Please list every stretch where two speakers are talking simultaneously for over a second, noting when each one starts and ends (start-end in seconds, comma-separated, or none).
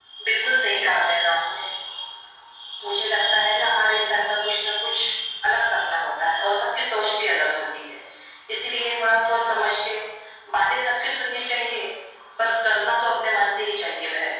none